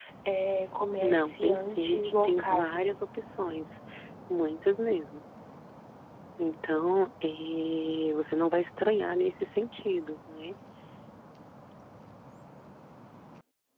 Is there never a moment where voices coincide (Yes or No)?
No